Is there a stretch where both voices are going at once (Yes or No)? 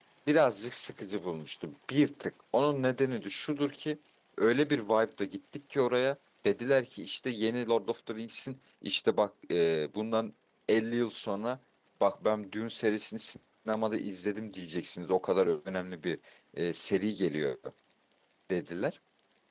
No